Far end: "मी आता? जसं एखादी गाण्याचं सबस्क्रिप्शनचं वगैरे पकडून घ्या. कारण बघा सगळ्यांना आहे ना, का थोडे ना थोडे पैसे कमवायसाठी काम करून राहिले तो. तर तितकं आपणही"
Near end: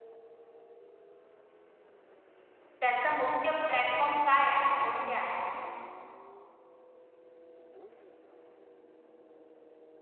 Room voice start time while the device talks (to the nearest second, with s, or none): 3 s